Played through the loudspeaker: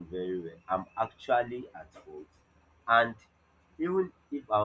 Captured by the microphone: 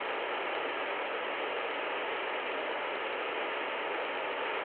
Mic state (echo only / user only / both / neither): neither